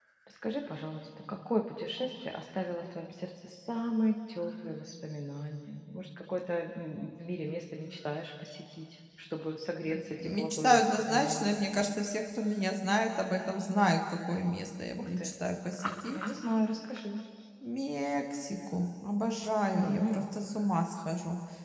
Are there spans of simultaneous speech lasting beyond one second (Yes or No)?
Yes